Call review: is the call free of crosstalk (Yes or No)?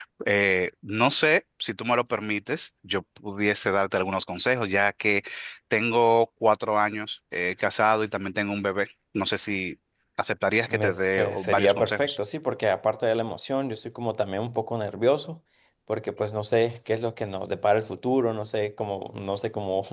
No